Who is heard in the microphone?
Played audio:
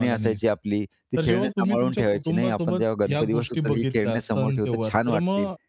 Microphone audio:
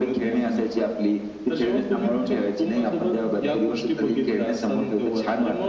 echo only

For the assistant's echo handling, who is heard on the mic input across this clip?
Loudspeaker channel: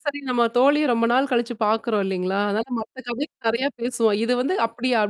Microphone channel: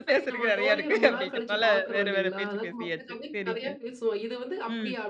both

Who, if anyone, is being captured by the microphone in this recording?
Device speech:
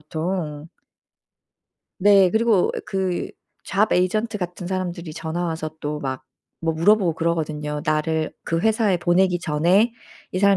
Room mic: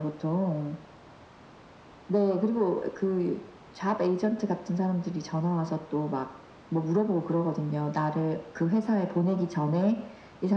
echo only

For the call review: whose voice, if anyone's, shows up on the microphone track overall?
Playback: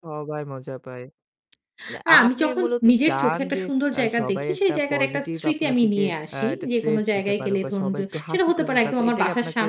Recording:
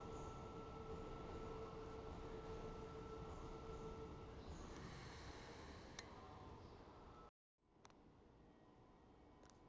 neither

